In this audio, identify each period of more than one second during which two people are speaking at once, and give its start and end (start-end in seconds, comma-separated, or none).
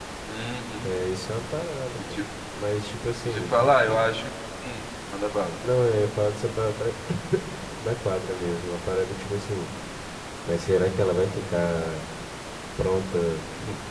none